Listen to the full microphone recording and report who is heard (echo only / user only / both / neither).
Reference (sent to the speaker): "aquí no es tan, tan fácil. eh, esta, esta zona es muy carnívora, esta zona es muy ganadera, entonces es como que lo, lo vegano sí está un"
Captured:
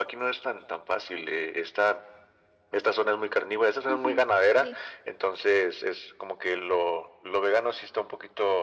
both